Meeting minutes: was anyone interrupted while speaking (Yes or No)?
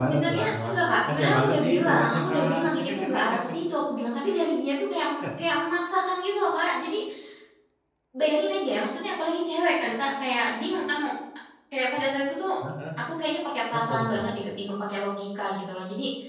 Yes